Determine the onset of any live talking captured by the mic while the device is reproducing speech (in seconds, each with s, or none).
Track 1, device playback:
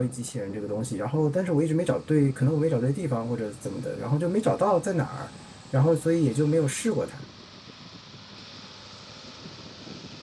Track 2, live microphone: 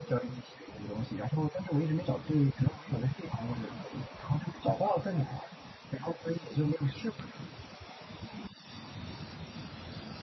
none